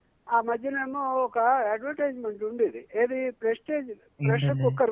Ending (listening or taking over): listening